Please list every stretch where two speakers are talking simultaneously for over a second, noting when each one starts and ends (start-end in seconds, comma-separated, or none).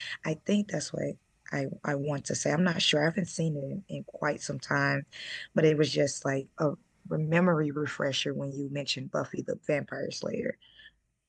none